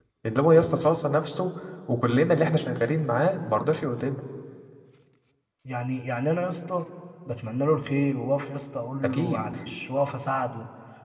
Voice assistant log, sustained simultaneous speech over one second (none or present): none